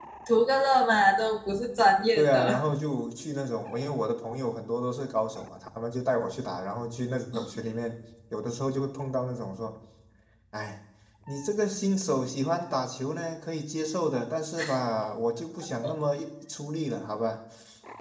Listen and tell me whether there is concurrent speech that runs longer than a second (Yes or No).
No